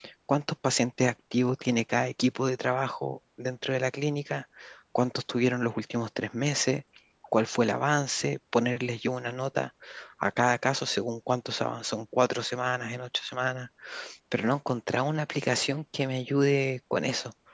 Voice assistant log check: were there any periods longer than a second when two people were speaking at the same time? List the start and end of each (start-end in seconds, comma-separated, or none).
none